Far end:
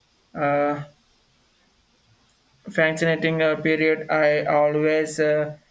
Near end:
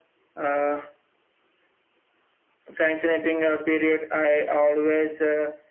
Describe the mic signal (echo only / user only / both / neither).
echo only